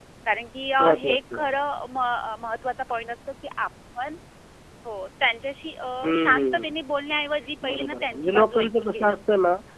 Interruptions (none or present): present